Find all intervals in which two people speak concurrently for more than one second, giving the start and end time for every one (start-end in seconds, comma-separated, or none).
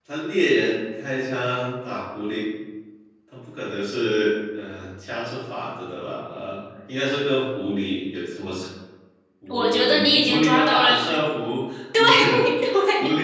9.5-11.0